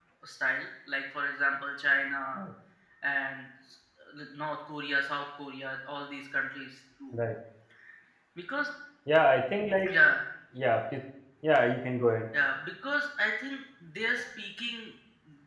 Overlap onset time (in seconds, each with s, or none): none